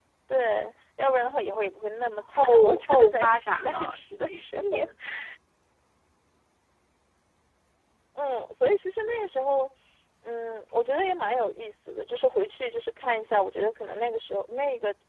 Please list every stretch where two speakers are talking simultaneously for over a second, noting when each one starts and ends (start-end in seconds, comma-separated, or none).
2.4-4.9